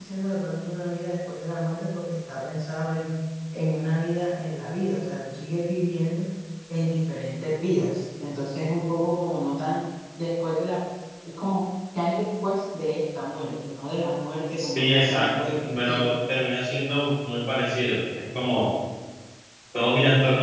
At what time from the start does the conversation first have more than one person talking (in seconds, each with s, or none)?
14.6 s